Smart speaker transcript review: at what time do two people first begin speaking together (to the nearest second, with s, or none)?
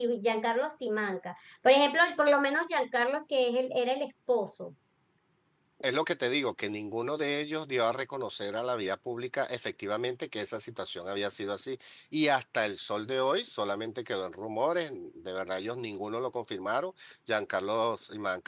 none